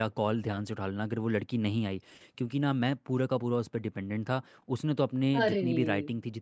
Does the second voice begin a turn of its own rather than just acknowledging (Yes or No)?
No